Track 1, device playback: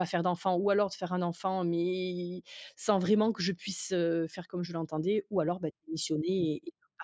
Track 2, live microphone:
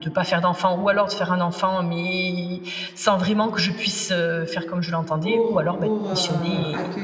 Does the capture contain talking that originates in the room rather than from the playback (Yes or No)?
Yes